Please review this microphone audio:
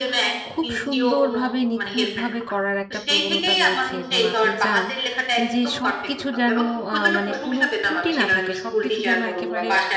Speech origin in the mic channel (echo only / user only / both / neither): both